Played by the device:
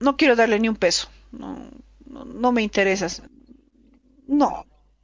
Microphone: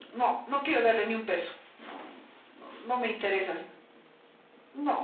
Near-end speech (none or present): none